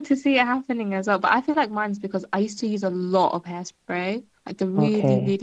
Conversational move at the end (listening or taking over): listening